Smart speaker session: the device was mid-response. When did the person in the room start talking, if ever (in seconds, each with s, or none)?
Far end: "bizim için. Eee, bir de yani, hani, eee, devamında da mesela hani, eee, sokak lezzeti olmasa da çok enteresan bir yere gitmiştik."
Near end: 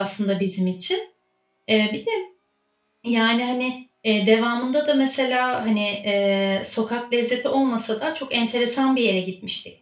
none